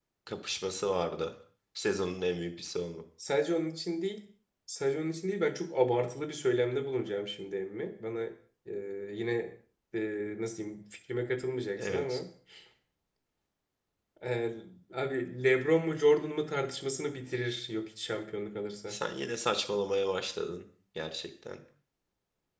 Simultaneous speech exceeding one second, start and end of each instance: none

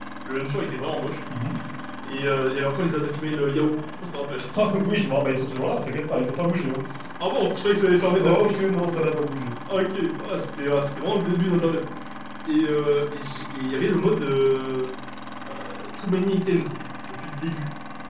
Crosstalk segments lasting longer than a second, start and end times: none

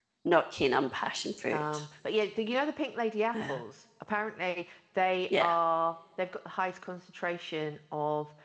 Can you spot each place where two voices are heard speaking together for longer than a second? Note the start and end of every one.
none

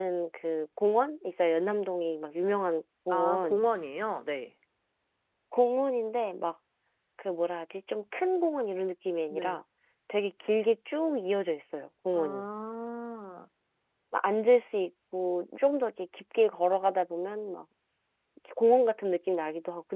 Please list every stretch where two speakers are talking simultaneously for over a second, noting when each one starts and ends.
none

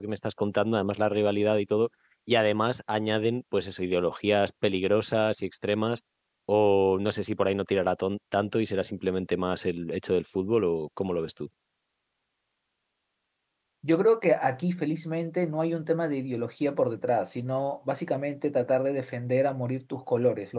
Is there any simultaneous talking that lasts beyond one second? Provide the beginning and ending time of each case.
none

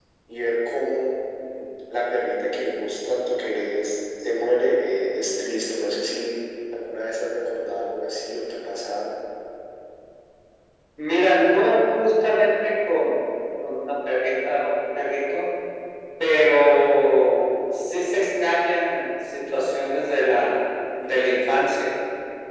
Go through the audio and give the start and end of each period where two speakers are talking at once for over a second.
none

